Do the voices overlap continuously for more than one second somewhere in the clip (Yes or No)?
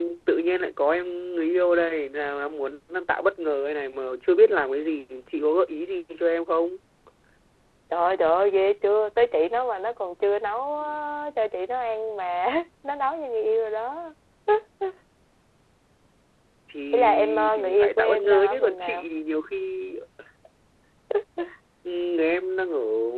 Yes